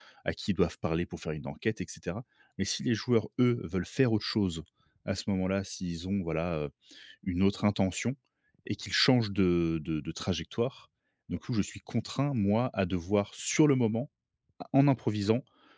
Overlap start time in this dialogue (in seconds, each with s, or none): none